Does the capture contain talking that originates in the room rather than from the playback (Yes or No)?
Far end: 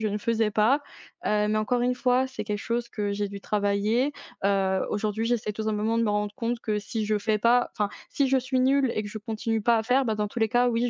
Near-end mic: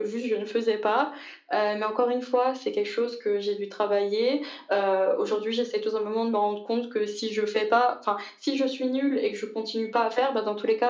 No